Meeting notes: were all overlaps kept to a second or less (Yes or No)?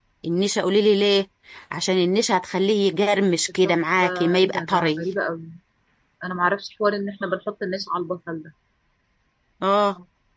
No